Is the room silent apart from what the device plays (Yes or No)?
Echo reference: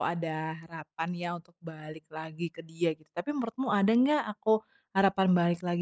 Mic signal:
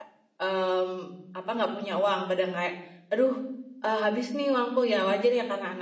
No